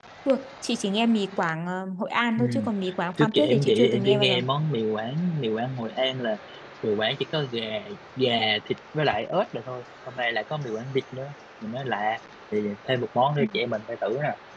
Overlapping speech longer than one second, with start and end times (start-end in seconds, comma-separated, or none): 3.2-4.4